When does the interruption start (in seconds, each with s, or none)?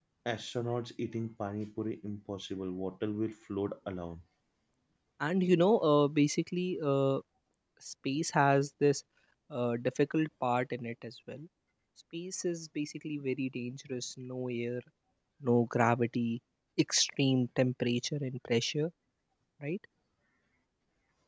none